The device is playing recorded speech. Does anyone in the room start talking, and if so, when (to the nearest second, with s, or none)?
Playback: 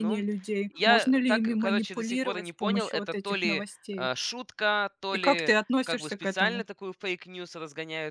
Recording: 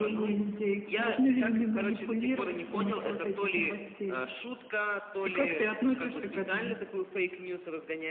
none